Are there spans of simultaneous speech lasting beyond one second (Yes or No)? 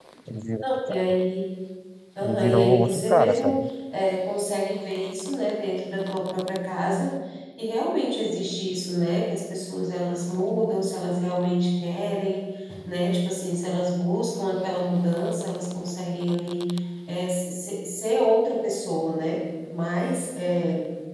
Yes